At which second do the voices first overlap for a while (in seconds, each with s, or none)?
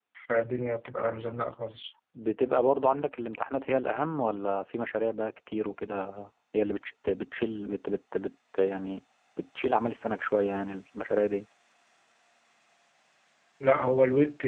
none